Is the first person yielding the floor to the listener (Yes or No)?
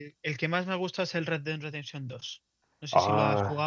Yes